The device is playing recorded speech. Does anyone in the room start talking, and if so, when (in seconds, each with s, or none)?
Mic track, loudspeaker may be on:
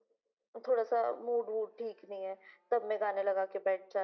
none